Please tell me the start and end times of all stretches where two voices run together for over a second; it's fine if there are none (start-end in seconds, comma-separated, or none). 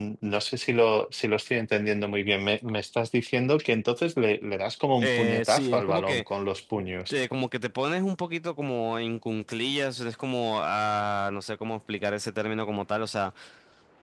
5.0-6.2